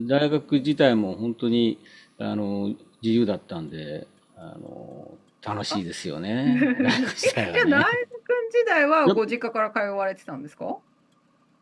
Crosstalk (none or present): present